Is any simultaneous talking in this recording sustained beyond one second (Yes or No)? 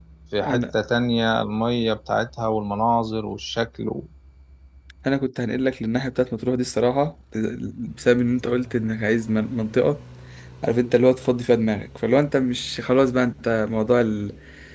No